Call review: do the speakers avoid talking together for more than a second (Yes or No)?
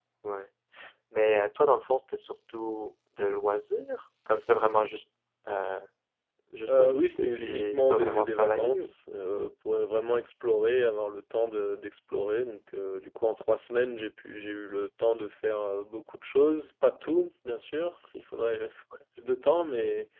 No